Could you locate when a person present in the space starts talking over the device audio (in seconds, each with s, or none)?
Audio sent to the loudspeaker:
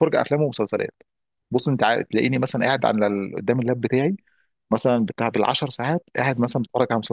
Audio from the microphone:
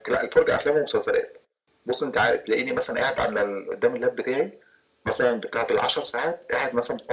none